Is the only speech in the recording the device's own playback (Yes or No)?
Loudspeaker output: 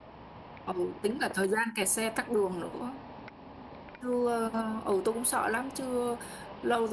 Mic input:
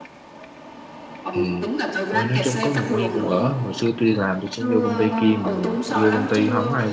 No